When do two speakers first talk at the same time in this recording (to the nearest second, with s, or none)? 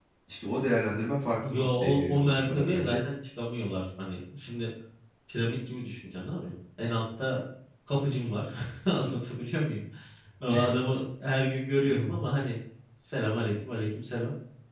1 s